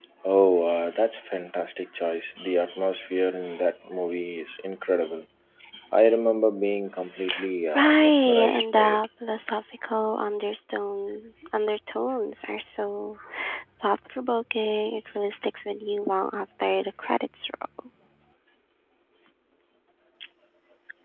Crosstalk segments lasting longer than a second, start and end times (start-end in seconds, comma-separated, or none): 7.7-9.0